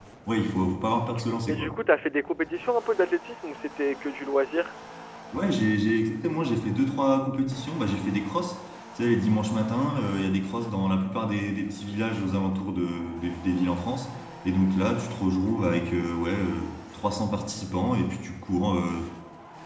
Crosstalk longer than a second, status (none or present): none